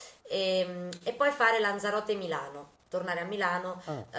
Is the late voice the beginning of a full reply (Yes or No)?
No